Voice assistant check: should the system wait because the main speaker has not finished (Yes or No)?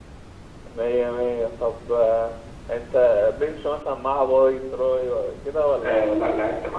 No